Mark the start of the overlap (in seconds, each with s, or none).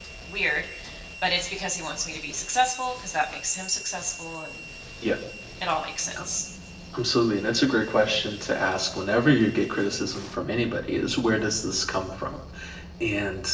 none